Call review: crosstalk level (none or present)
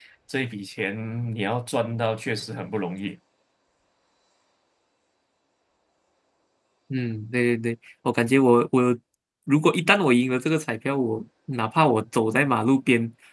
none